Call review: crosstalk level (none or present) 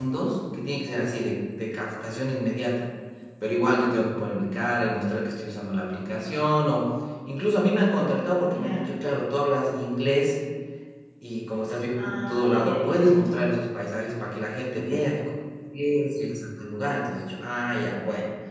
present